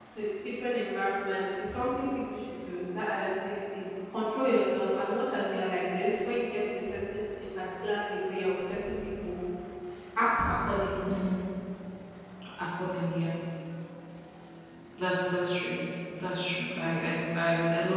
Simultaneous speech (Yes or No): No